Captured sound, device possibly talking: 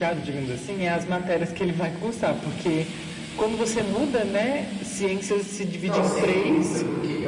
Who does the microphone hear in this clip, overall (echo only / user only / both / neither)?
both